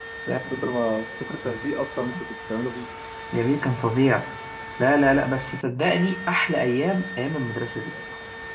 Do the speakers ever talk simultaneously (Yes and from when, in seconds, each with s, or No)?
No